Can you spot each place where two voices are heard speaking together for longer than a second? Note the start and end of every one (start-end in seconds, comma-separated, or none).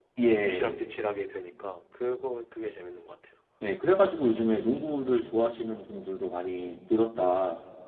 none